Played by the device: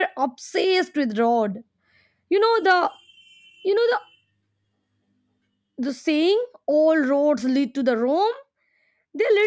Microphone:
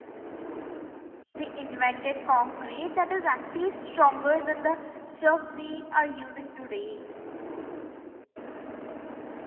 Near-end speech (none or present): present